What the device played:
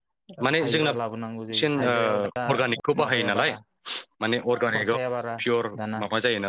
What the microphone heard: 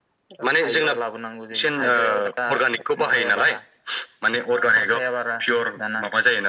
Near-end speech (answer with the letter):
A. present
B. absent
B